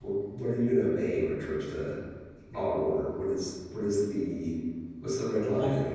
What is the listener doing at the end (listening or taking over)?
taking over